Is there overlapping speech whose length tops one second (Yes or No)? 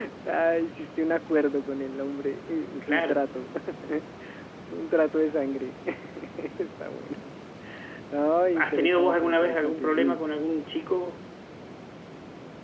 Yes